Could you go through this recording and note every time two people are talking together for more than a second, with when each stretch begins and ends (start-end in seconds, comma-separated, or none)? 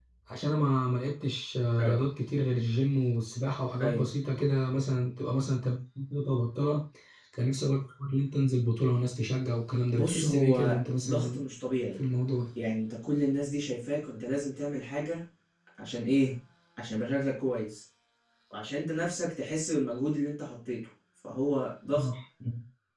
9.9-11.4